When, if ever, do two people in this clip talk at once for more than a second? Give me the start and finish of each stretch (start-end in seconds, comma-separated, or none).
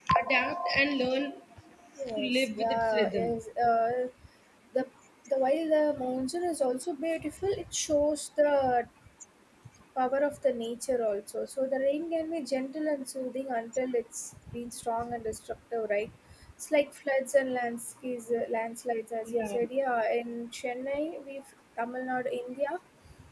2.1-3.3